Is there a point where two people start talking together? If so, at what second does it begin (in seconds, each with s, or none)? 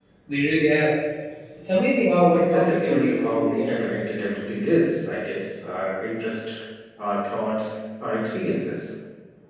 2.4 s